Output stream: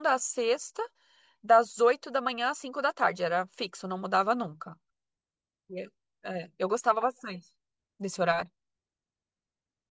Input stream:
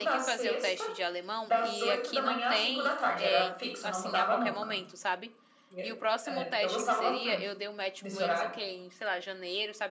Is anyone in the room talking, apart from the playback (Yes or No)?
Yes